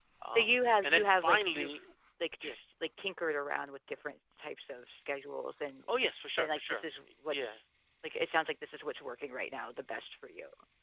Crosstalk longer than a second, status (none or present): present